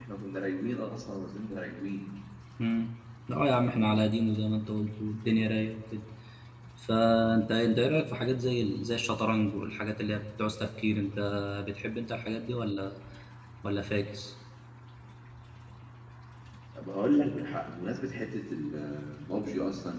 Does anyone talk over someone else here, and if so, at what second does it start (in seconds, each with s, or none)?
none